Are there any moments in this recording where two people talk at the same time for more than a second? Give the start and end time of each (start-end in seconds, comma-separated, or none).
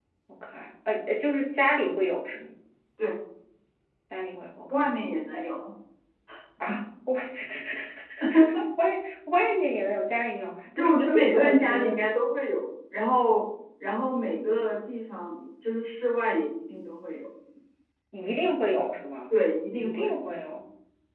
10.8-12.0